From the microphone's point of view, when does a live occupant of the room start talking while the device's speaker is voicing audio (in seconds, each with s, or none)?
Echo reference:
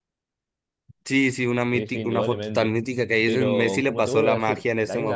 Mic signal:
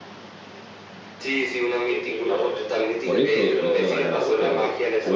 3.0 s